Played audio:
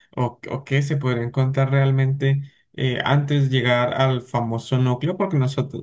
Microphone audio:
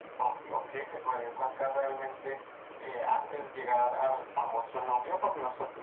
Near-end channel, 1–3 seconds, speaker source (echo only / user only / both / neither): echo only